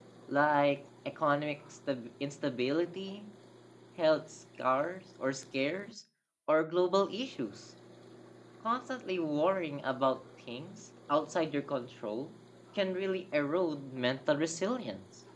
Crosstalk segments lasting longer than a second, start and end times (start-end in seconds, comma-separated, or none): none